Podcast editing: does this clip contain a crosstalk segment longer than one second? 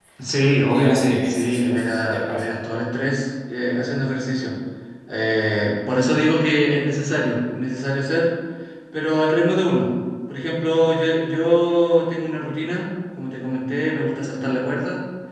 Yes, from 0.7 s

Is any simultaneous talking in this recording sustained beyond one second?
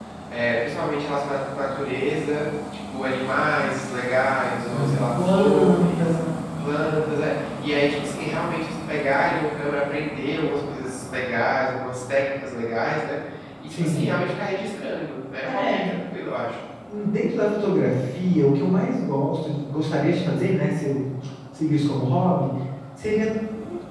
Yes, from 4.8 s

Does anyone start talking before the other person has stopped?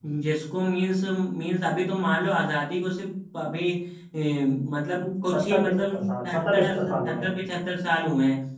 Yes, from 5.3 s

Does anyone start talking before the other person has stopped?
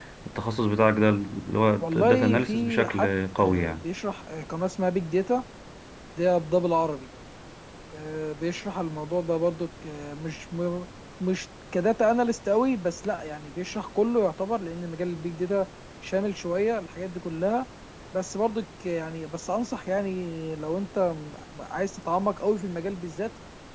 Yes, from 1.8 s

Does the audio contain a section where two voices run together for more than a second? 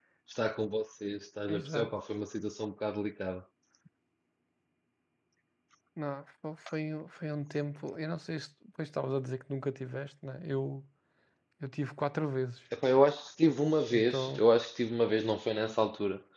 No

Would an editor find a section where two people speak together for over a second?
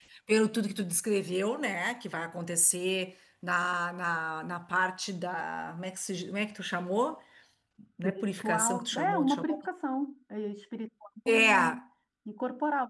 Yes, from 8.0 s

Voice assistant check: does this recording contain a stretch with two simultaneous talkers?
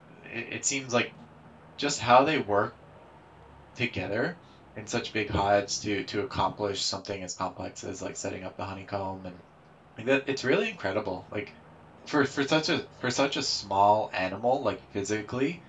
No

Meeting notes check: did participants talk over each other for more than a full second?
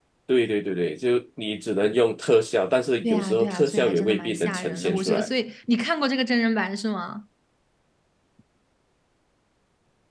Yes, from 3.0 s

